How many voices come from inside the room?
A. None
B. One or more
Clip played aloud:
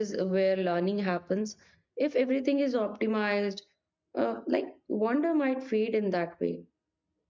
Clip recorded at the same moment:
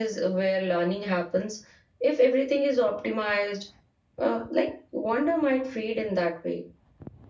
A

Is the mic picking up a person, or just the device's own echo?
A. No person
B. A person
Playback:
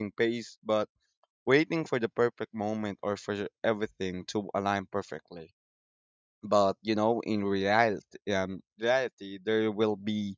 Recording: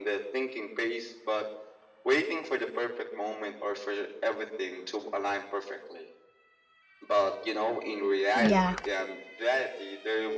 B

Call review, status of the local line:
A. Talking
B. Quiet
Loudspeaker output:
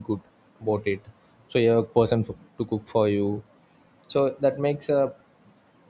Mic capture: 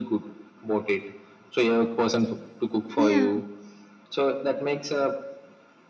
A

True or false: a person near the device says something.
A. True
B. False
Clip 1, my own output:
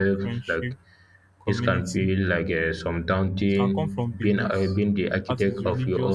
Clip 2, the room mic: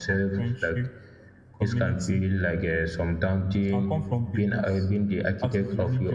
B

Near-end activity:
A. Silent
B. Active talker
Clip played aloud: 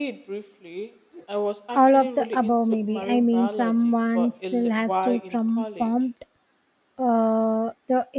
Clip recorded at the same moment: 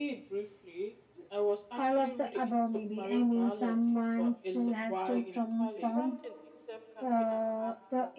B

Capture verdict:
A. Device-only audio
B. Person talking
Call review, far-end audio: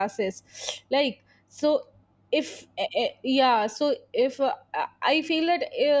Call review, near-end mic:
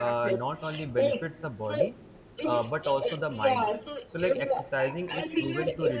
B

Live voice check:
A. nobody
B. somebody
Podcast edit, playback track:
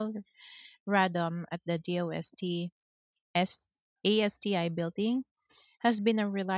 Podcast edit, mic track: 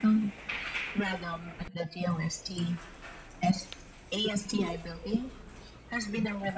A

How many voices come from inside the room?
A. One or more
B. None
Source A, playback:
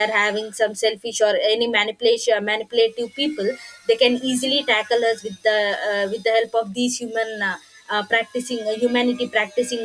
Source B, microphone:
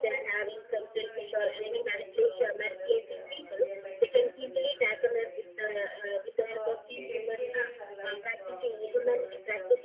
A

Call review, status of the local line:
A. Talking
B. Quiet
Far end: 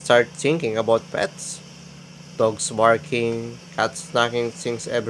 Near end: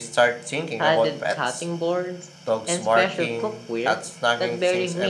A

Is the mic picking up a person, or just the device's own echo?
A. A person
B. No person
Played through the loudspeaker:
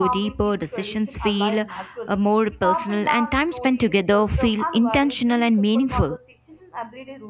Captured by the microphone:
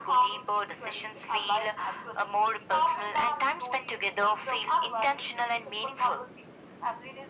B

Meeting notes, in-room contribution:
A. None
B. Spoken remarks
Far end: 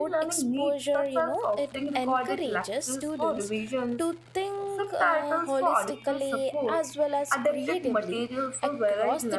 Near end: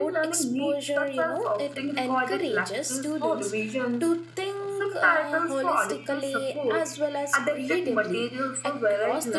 A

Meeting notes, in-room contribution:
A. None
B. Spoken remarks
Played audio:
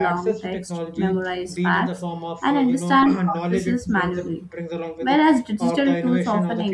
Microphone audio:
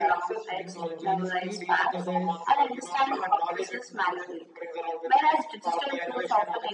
B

